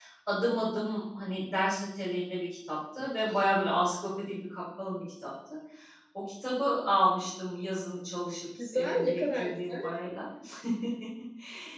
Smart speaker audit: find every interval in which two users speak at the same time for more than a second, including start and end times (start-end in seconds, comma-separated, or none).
8.7-9.9